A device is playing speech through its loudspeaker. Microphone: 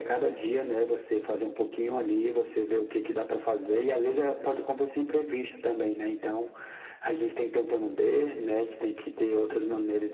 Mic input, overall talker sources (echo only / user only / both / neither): echo only